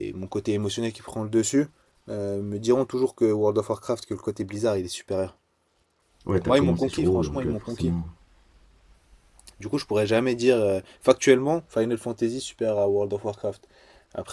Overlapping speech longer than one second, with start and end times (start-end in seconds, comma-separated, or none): 6.4-7.9